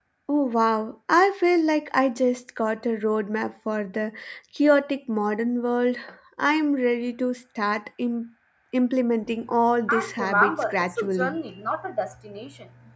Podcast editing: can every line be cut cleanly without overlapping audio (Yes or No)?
No